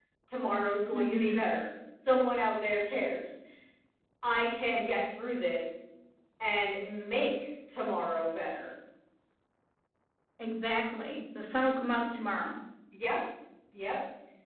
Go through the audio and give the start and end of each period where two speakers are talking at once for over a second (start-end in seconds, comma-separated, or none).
none